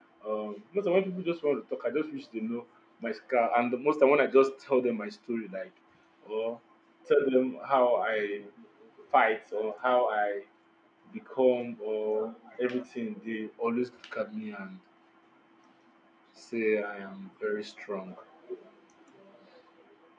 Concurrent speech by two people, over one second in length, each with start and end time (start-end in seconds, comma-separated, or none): none